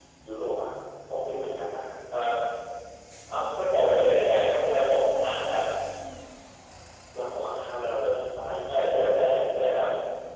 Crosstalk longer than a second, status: present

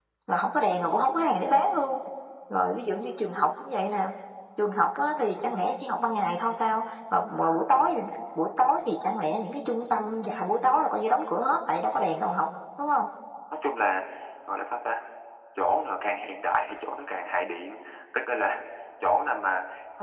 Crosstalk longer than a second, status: none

